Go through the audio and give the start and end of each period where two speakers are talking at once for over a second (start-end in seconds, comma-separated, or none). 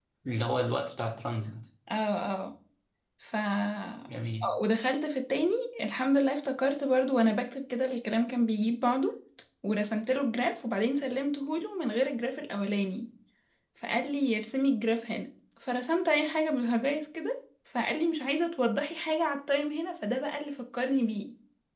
none